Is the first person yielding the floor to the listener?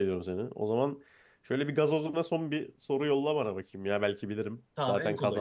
Yes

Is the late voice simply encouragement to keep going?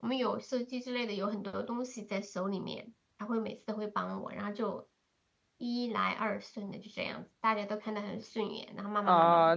No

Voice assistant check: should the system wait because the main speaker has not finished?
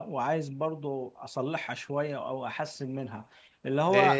Yes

